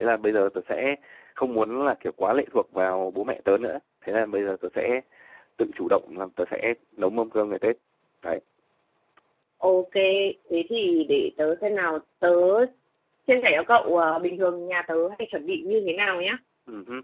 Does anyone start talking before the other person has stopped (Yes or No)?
No